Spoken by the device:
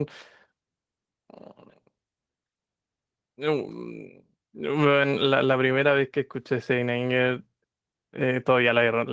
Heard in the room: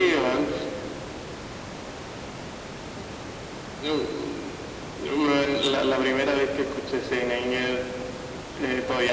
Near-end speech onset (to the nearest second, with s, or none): none